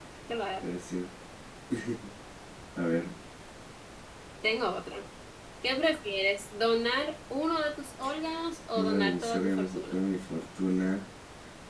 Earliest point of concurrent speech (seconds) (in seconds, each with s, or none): 8.7 s